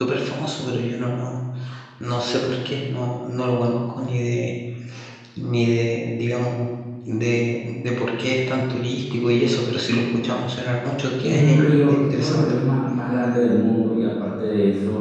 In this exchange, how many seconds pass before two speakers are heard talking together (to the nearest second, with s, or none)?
11 s